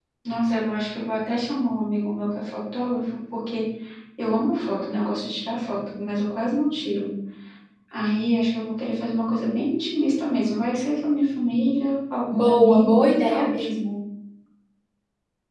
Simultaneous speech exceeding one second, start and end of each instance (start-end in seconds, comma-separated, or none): 12.3-13.7